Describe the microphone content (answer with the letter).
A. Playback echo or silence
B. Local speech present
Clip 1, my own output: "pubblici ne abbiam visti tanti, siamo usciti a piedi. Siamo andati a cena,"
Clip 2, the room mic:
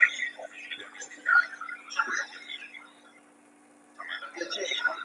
A